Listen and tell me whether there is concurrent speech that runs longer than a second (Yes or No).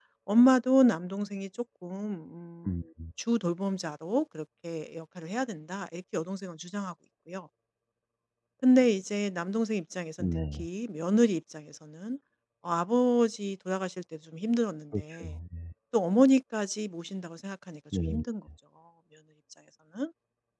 No